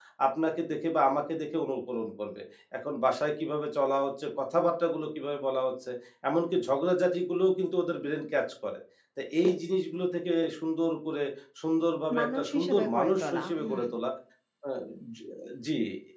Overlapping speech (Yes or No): Yes